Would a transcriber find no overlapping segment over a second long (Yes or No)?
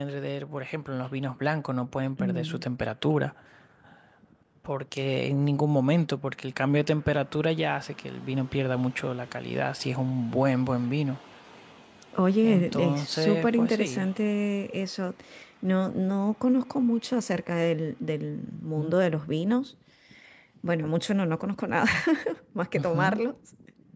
No